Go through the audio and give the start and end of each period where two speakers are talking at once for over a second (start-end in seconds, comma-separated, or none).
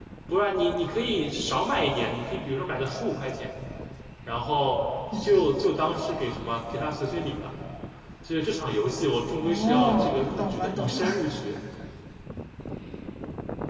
9.4-11.1